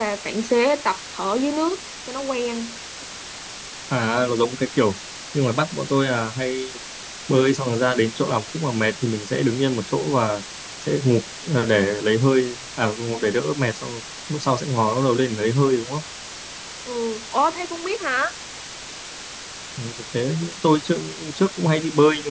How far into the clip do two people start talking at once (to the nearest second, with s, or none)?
none